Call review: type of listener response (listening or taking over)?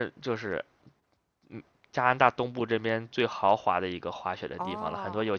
listening